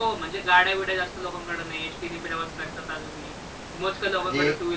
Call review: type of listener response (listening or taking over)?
listening